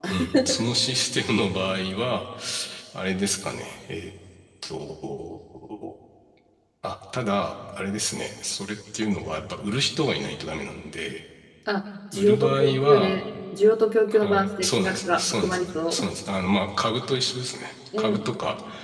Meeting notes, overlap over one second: present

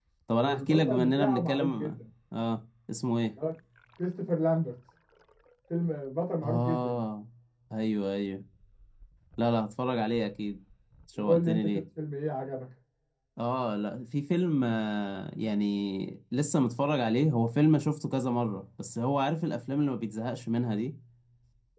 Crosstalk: present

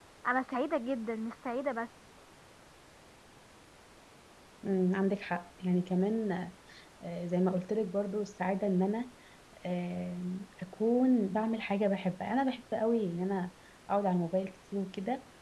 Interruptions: none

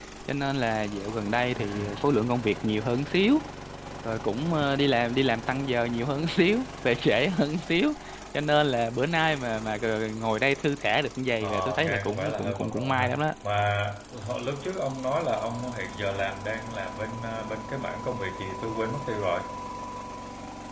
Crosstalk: present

